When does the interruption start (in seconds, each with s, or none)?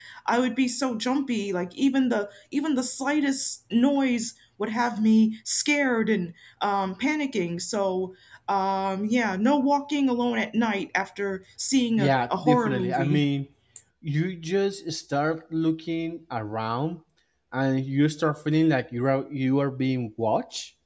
12.0 s